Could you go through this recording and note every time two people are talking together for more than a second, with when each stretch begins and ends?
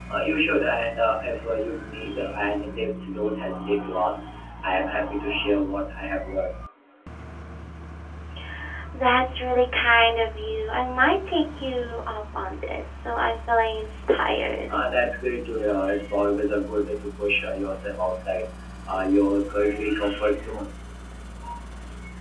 none

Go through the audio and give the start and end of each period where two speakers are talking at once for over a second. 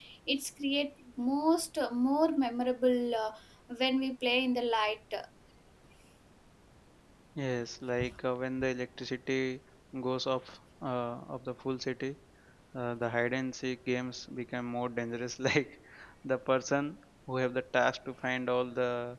none

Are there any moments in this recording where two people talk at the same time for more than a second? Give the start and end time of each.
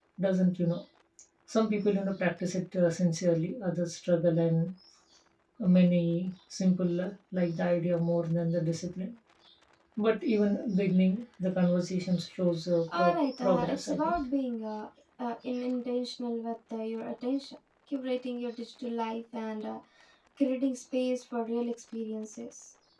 12.9-14.2

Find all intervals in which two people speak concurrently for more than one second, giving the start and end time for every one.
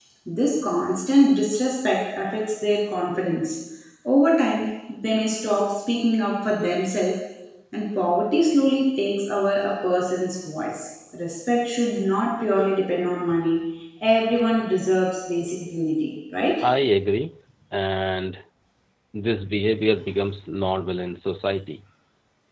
none

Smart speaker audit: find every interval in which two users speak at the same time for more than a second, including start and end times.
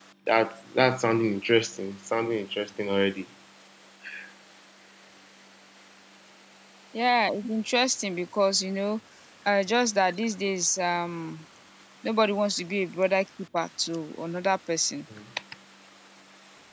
none

